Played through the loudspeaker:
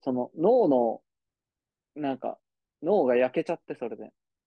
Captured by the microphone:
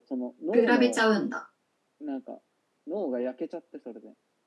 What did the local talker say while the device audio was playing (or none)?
比べちゃうんだ。